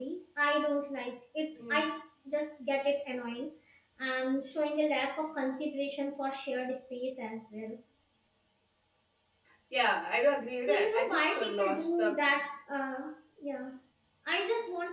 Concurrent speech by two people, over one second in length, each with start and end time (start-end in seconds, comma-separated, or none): 10.7-12.2